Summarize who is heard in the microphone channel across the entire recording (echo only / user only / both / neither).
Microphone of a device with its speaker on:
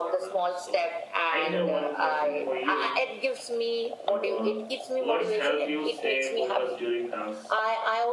both